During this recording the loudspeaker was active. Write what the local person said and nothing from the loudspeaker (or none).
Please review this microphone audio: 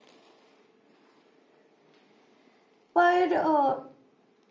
पर अ,